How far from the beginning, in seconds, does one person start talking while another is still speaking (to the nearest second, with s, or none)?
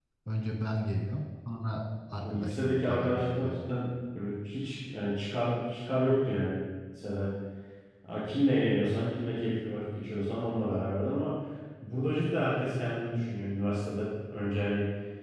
2 s